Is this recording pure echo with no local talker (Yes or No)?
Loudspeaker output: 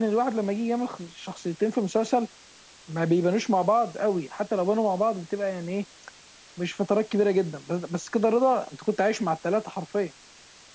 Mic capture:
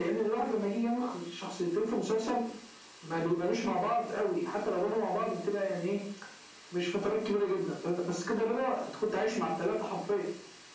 Yes